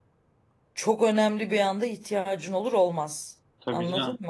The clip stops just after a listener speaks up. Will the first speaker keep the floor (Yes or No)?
No